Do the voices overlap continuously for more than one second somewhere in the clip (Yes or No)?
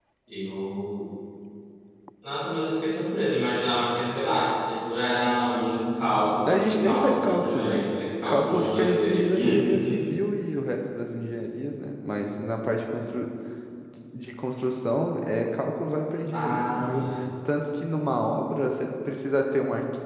Yes